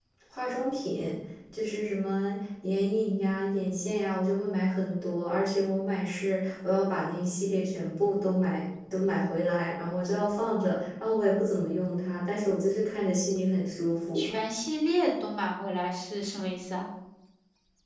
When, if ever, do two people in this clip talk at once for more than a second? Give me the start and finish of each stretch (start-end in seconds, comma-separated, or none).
none